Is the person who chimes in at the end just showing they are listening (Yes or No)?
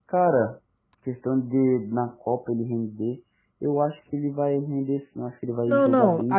No